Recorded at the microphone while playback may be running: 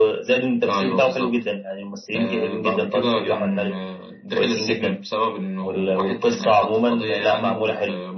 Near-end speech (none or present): none